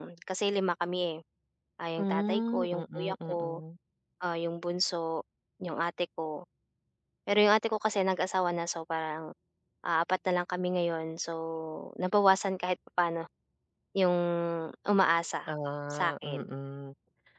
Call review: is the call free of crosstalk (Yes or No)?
No